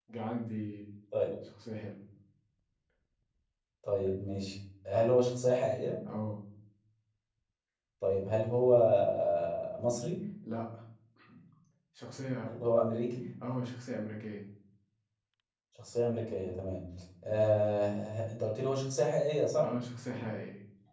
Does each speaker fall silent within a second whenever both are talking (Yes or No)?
Yes